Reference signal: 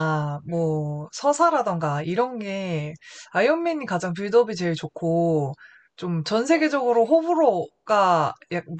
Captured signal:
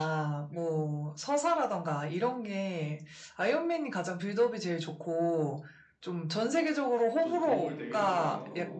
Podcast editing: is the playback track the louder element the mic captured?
Yes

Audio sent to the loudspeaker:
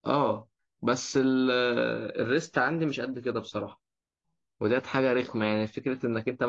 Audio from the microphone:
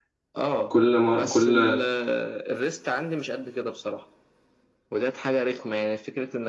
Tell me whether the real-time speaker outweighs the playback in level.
Yes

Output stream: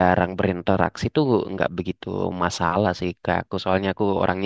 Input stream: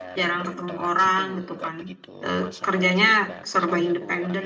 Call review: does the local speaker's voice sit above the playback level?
Yes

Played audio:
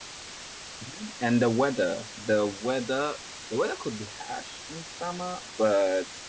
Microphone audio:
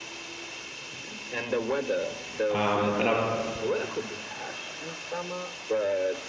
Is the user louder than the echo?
Yes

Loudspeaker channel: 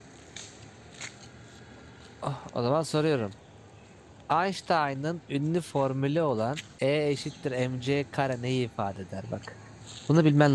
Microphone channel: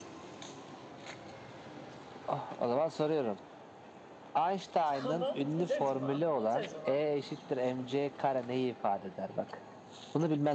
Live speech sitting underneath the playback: Yes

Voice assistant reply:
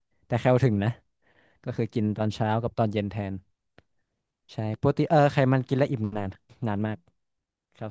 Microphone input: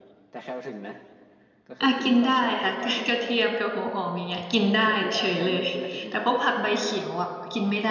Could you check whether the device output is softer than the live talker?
Yes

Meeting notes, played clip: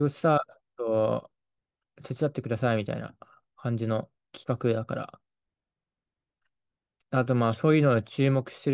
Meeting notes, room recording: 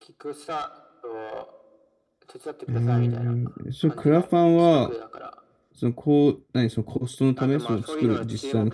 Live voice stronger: Yes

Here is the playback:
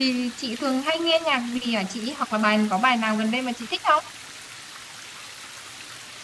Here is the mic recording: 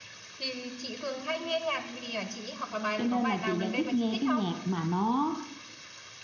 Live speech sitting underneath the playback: No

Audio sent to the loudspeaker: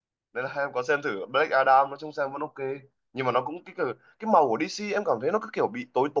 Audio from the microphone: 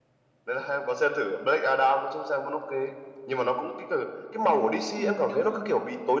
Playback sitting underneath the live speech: No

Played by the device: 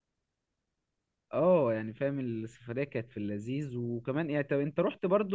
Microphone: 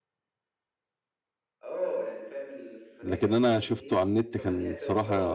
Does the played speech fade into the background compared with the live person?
Yes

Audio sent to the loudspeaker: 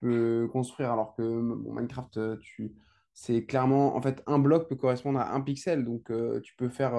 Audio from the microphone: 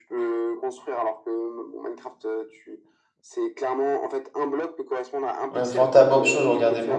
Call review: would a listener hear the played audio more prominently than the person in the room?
No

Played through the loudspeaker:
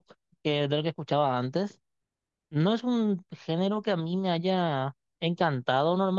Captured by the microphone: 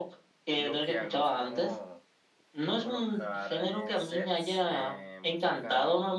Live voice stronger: No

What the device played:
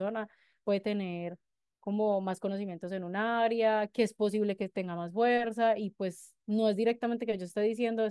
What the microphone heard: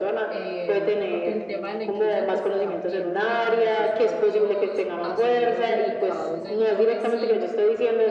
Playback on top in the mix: Yes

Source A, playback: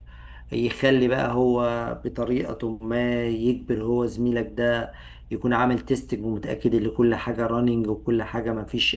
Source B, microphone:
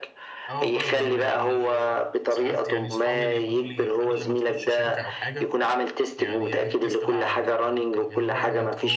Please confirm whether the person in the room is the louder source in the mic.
No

